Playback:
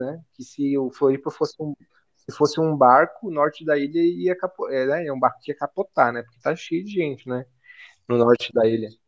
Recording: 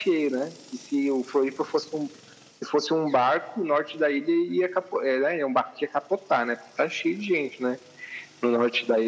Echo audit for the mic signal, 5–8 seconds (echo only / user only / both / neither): echo only